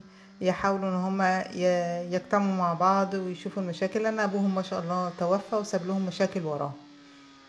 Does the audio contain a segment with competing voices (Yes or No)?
No